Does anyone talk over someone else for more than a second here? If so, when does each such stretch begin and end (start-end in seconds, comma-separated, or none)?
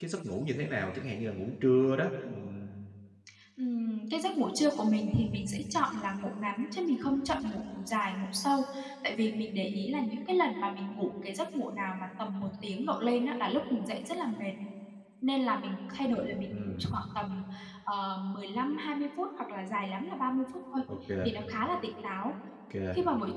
none